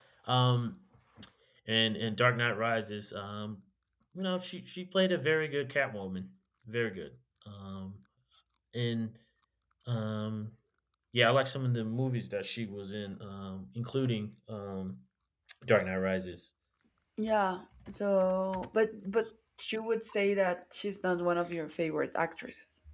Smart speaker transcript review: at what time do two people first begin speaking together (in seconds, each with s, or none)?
none